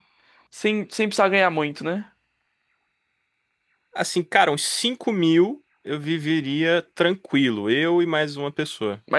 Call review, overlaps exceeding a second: none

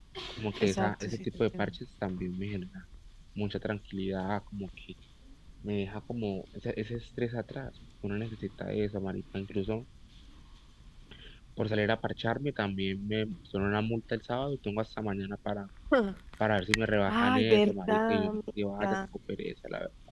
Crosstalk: present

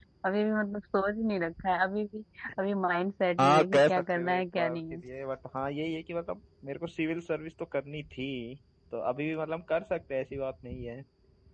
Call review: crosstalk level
present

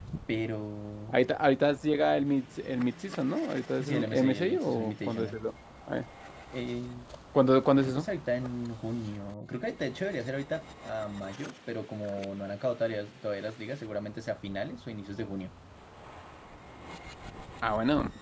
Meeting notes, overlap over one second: present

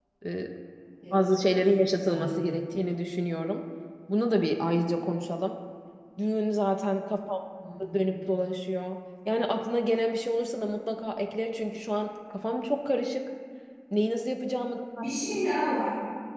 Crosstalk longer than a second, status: present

